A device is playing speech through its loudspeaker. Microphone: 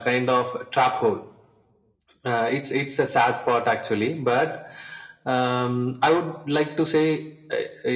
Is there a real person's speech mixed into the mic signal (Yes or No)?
No